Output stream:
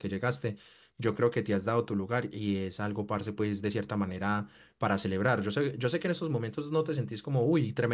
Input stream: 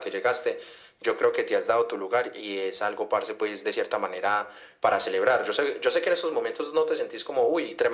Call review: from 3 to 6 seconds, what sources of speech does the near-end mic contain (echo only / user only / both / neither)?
echo only